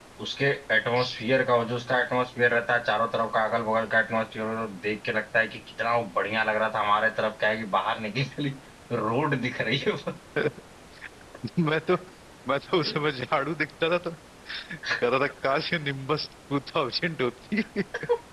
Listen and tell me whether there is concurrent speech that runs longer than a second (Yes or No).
No